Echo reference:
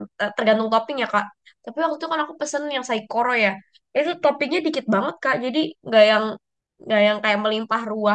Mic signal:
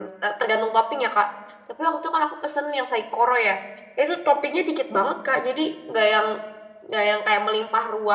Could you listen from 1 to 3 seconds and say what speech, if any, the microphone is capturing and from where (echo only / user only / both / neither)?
echo only